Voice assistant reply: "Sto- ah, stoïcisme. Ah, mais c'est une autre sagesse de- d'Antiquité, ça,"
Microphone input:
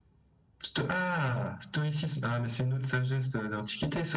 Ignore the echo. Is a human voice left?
No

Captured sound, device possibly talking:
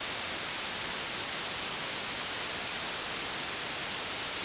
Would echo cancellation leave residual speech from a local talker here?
No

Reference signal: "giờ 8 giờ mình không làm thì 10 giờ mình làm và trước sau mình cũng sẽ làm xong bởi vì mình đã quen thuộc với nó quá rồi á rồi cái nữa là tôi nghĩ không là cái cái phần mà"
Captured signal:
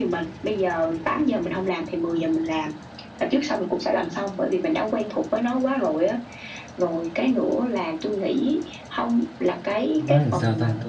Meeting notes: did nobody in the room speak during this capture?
No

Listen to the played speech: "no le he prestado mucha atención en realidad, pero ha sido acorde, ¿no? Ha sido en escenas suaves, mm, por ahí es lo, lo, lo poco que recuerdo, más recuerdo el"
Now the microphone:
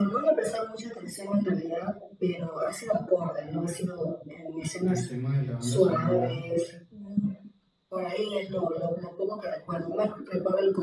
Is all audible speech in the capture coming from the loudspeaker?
No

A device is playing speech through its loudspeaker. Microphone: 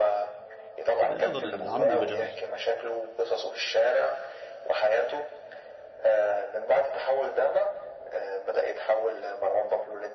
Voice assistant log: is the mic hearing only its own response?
No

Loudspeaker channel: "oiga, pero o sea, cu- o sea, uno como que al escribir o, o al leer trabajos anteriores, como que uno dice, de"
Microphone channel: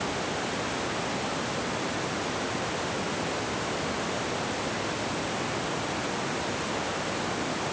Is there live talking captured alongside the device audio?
No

